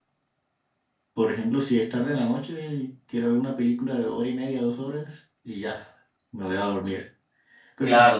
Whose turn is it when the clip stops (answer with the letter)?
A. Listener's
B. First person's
A